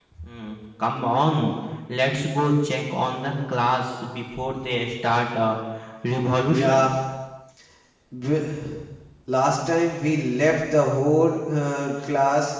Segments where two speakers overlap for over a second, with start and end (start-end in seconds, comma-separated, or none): none